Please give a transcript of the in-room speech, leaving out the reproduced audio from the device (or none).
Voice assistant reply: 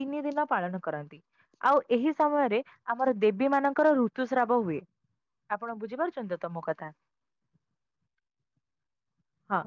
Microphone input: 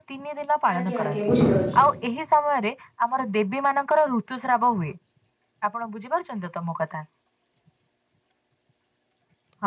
ଆଜ୍ଞା ଆଜ୍ଞା ବୁଝିପାରୁଚି।